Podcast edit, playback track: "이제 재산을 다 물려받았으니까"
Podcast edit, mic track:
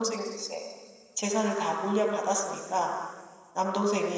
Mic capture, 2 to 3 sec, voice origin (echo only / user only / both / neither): echo only